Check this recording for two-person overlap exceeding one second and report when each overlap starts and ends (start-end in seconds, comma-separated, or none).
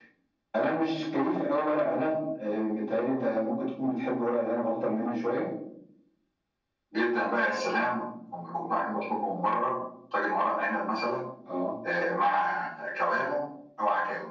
none